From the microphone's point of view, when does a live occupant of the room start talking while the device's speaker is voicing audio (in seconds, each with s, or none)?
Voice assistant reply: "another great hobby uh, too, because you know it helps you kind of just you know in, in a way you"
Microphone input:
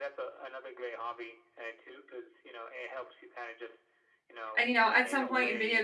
4.6 s